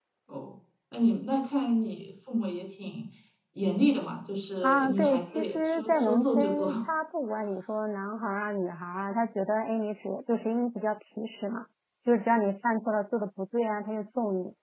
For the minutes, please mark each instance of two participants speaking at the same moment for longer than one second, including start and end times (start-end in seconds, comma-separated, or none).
4.6-6.7